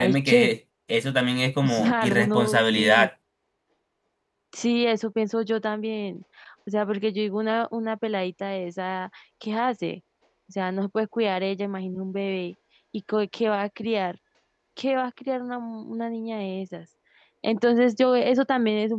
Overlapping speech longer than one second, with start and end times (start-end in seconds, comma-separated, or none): 1.6-3.1